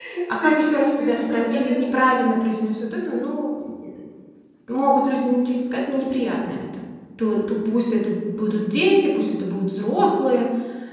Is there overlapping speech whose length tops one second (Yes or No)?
Yes